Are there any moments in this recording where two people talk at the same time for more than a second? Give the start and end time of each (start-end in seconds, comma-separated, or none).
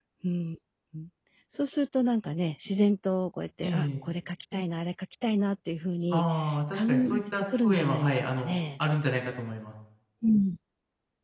6.7-8.6